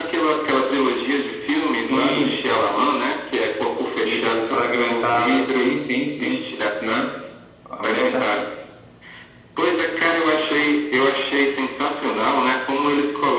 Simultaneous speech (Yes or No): Yes